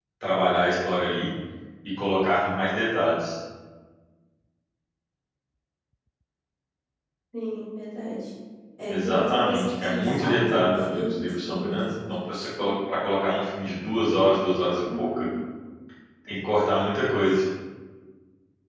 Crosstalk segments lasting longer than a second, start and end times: 8.9-12.1

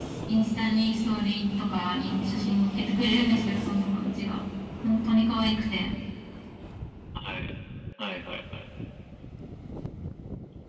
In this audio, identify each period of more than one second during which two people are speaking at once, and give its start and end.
none

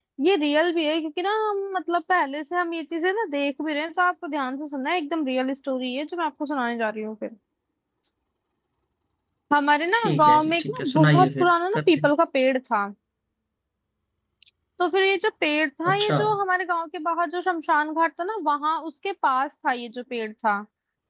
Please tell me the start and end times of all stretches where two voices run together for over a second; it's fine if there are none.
9.9-12.1

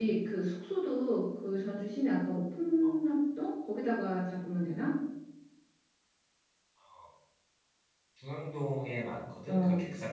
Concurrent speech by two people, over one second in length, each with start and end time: none

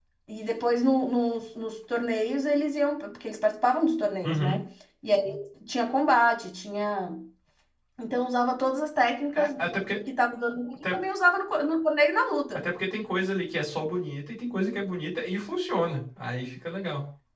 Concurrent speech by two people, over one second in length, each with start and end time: none

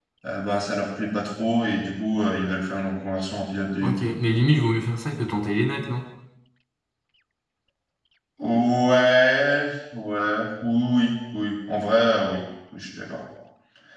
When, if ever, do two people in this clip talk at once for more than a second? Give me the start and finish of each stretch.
none

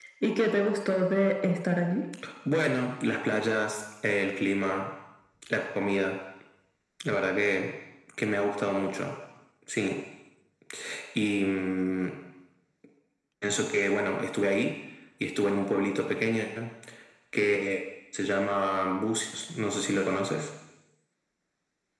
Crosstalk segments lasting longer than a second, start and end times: none

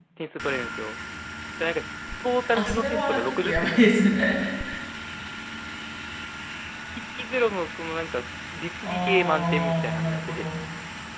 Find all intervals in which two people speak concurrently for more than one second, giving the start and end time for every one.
2.5-4.1, 8.8-10.5

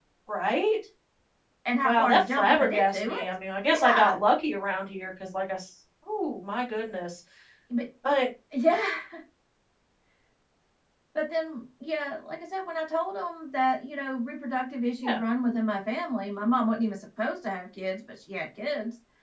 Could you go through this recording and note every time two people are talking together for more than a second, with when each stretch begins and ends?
1.8-3.3

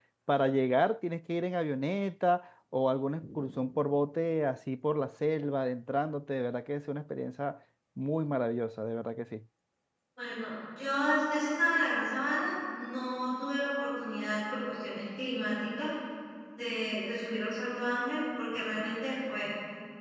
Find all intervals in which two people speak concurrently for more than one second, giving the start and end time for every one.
none

